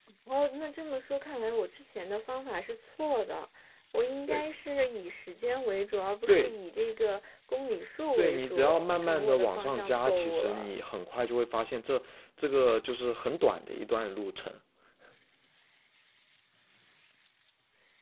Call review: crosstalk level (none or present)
present